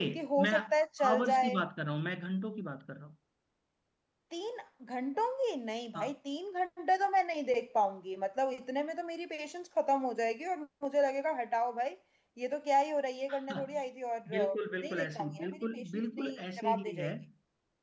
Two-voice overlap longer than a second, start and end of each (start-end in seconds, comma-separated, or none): 14.3-17.1